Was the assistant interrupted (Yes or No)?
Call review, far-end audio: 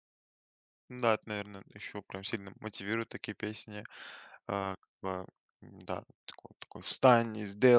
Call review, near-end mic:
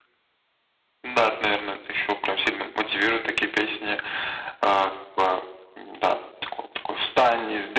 No